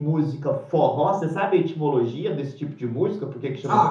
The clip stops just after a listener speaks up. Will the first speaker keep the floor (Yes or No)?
No